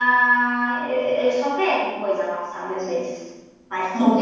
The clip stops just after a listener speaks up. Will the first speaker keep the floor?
No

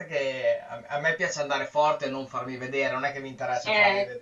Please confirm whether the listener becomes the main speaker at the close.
Yes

